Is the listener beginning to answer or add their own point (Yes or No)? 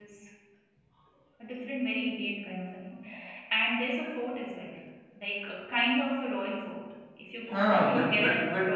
Yes